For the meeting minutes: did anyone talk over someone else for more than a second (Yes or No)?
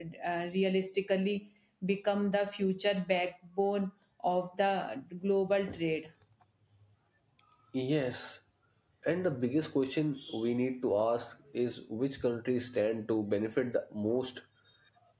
No